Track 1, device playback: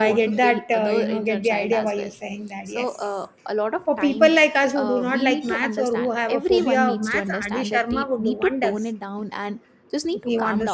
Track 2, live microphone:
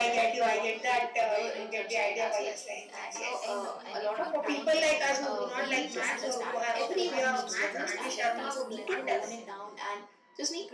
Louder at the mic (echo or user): echo